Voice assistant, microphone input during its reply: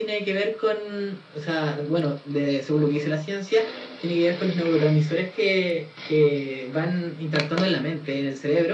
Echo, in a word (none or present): present